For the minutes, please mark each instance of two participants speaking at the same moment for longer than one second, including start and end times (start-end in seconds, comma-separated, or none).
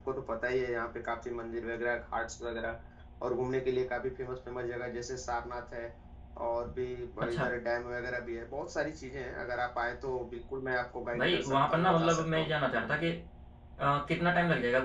11.2-12.5